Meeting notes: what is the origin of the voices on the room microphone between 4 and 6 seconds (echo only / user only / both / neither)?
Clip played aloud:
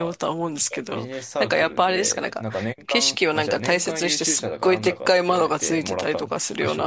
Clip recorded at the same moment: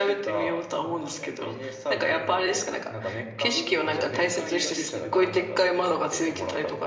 both